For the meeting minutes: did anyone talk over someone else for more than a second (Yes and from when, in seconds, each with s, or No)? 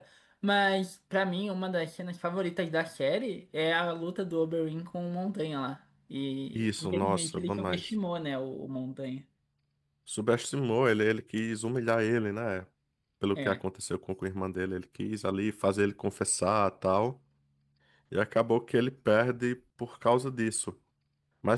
Yes, from 6.5 s